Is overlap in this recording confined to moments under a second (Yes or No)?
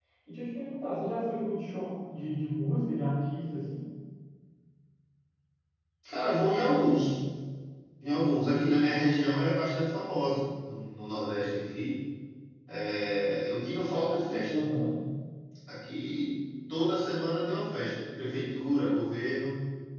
Yes